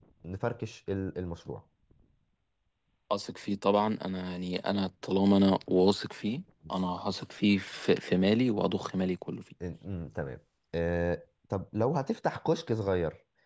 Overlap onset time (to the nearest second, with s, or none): none